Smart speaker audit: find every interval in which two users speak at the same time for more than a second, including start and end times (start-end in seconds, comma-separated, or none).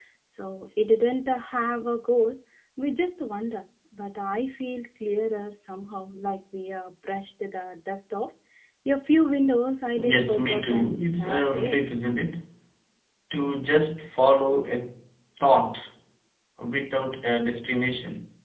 10.0-11.8